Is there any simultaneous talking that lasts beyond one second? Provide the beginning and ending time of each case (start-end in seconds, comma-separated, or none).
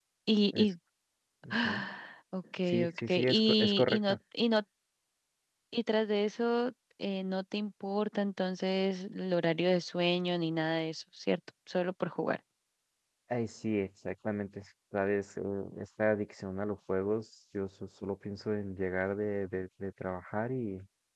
2.7-4.2